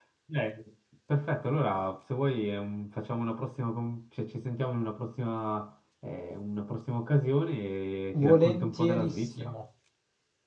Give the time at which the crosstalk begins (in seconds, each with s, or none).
8.2 s